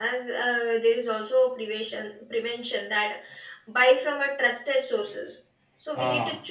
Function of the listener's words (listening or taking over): listening